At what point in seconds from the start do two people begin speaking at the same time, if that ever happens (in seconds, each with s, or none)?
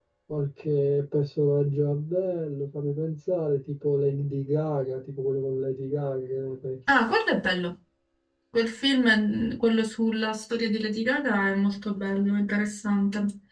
none